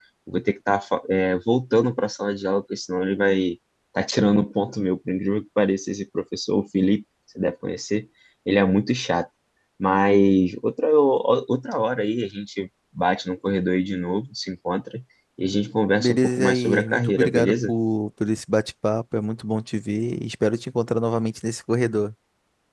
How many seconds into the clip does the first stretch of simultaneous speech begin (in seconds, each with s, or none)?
16.0 s